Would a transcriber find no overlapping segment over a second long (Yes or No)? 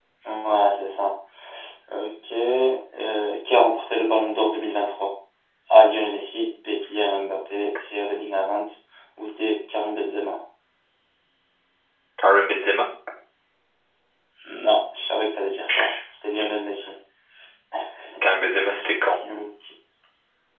Yes